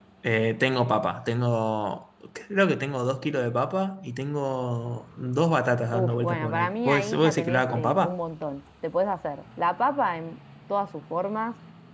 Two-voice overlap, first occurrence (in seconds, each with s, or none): 5.9 s